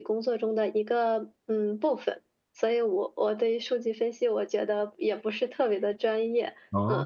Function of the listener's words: listening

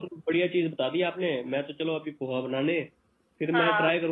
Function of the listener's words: listening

